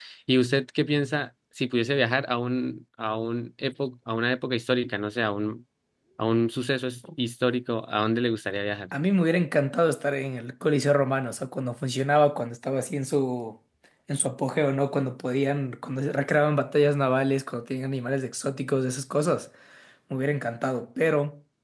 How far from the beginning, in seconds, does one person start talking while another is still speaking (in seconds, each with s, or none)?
none